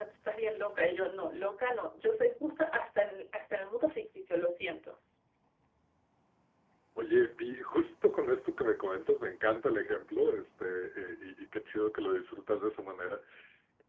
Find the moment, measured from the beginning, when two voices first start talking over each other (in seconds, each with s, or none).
none